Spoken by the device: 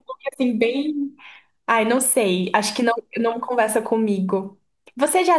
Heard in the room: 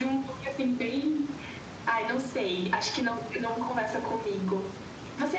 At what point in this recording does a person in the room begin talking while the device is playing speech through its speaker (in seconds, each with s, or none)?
none